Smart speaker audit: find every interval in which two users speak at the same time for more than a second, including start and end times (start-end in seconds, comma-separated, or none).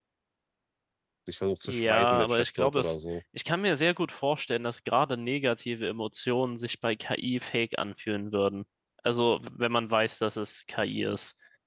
1.6-3.0